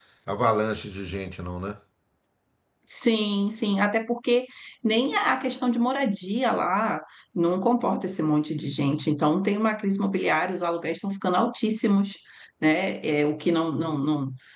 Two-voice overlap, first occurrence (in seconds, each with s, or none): none